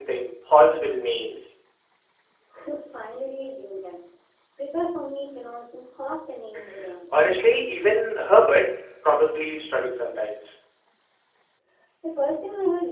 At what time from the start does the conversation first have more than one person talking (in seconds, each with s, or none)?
none